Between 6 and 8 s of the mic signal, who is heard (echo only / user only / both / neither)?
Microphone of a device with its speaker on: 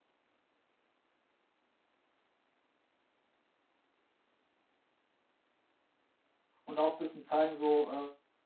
user only